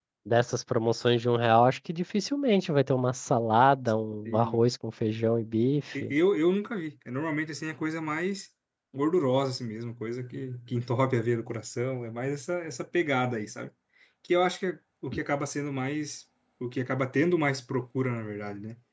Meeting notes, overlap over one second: none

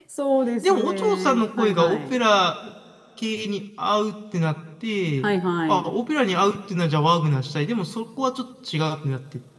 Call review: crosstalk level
present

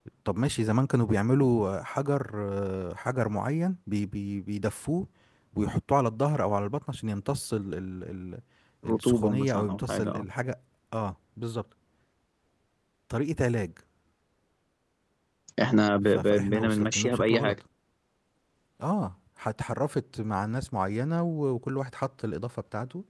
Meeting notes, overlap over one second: present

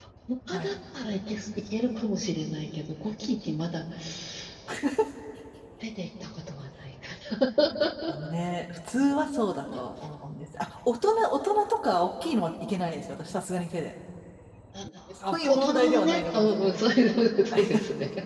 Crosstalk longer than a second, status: present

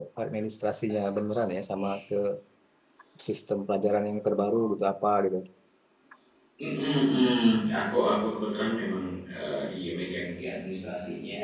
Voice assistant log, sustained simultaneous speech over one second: none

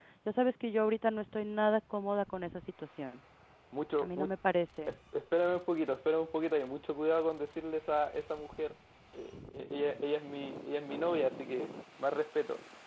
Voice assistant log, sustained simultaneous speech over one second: none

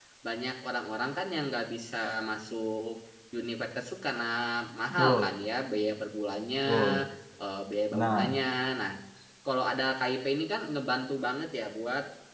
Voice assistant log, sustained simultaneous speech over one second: none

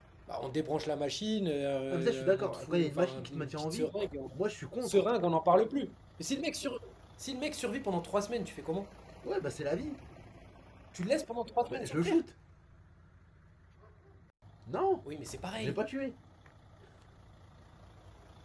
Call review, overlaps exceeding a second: present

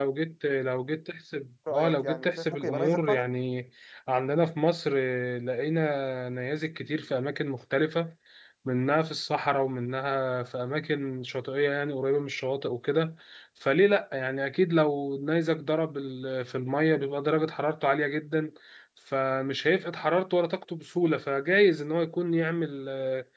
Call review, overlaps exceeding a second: present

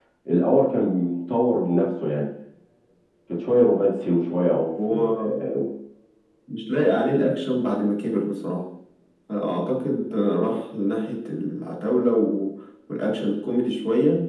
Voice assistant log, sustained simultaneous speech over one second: none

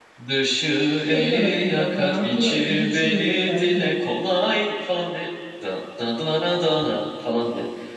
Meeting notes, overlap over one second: present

